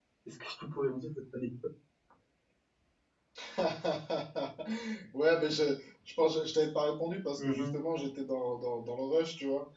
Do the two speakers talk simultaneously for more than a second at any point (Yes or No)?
No